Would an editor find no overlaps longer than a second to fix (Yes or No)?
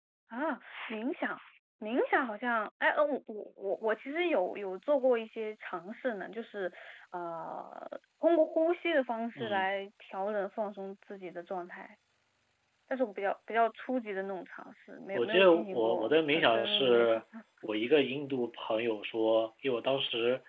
No